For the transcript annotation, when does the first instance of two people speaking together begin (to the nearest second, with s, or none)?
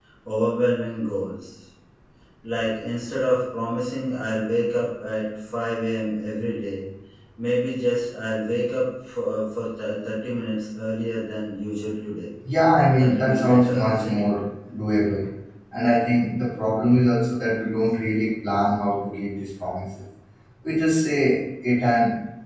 13 s